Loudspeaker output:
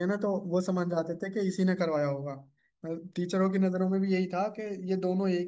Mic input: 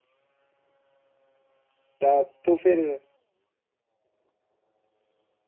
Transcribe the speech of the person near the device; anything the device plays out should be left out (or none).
तब तो फिर